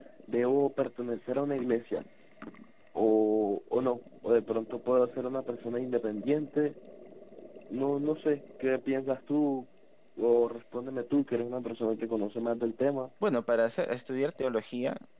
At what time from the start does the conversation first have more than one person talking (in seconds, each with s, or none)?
none